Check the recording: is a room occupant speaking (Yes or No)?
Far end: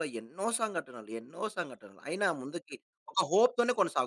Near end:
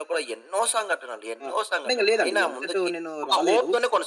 Yes